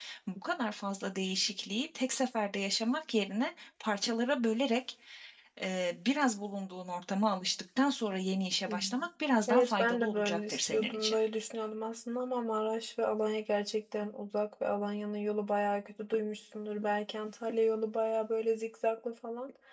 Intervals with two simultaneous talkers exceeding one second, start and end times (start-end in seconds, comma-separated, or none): 9.5-11.2